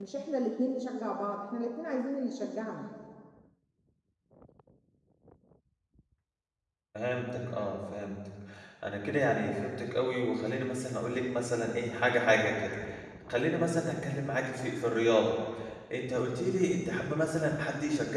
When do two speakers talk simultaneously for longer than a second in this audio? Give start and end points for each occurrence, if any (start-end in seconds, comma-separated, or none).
none